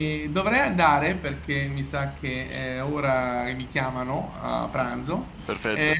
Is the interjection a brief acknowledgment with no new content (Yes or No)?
Yes